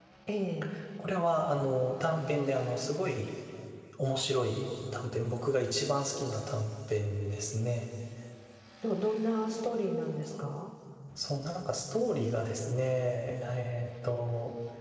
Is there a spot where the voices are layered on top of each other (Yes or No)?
No